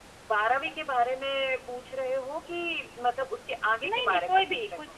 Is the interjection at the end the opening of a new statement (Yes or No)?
Yes